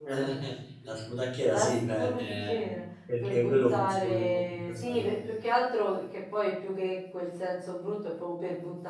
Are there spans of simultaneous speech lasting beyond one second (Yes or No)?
Yes